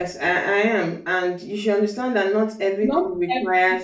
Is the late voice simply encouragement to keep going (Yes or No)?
Yes